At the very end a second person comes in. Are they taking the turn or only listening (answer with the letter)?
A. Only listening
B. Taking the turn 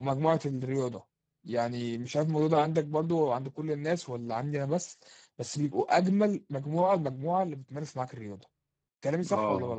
B